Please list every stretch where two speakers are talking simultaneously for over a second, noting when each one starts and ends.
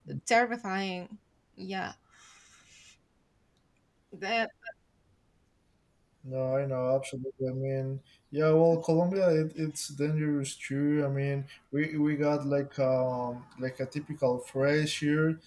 none

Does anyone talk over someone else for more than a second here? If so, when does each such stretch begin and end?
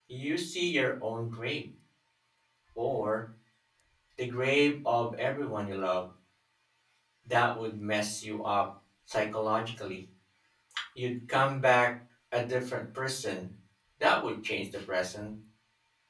none

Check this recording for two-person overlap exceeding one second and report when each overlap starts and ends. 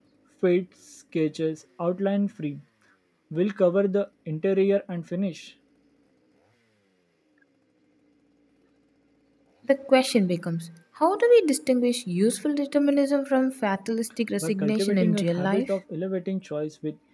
14.4-15.7

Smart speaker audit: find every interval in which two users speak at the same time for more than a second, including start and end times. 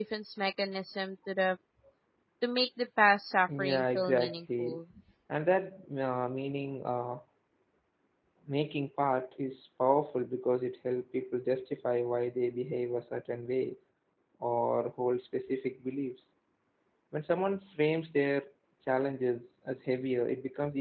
3.6-4.8

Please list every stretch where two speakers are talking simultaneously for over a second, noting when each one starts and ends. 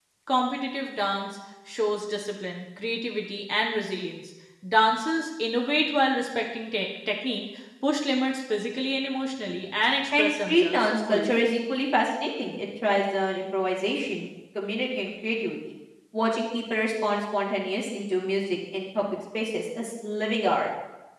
10.2-11.4

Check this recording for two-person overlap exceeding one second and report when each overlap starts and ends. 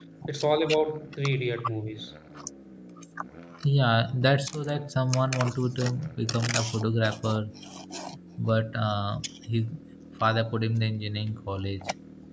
none

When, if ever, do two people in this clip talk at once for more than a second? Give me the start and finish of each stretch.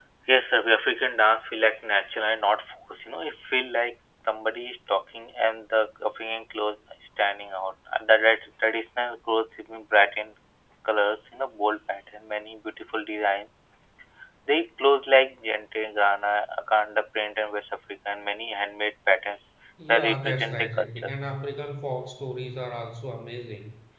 19.9-21.1

